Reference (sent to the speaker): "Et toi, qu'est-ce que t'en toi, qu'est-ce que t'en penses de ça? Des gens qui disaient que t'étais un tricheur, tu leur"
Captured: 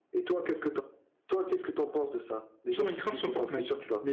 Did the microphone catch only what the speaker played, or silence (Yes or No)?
No